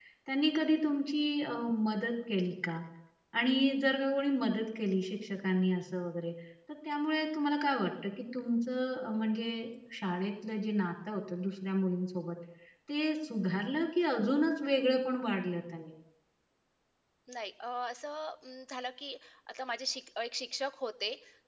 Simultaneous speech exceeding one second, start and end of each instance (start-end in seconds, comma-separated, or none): none